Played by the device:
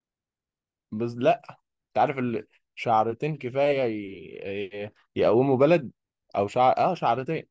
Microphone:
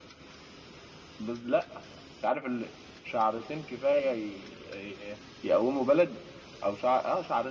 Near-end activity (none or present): none